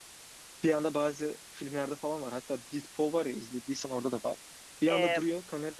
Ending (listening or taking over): listening